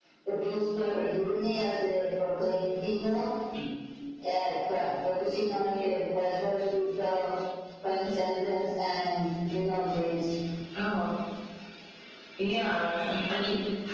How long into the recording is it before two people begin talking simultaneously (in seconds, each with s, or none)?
none